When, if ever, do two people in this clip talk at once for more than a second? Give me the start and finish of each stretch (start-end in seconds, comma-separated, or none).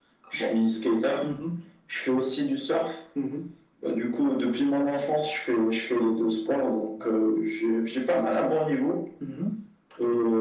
none